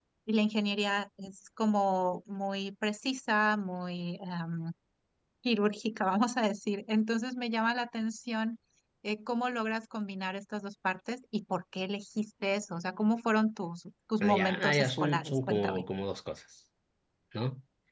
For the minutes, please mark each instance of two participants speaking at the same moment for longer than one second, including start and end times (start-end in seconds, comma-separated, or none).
14.2-15.8